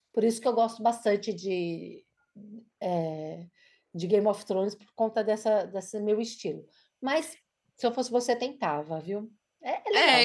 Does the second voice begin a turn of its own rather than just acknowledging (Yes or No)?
Yes